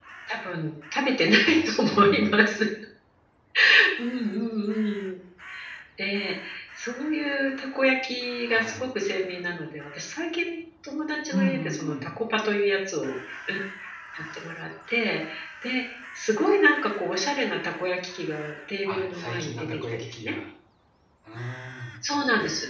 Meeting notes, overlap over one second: present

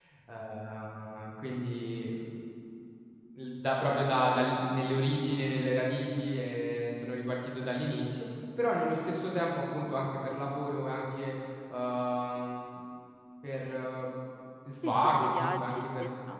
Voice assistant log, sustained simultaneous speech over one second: present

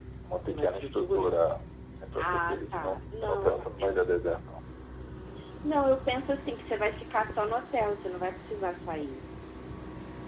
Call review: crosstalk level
present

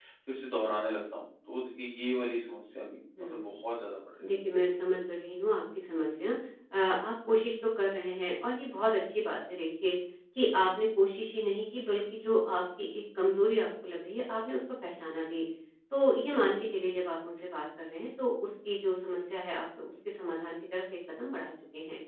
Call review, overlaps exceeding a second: none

